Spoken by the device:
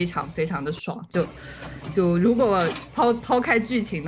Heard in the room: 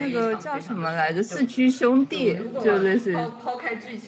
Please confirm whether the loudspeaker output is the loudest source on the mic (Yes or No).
No